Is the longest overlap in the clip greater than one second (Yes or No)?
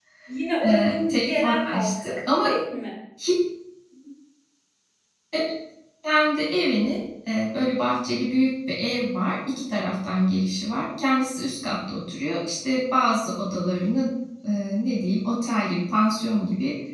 Yes